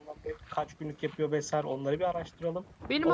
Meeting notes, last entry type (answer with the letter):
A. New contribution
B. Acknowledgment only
A